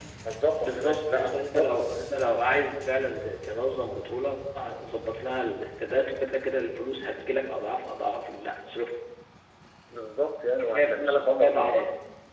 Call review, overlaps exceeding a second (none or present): present